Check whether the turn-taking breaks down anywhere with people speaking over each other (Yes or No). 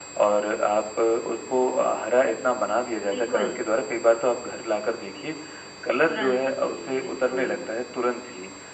Yes